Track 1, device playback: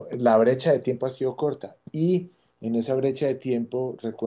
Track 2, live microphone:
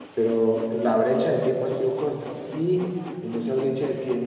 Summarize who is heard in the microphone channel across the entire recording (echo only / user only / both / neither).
echo only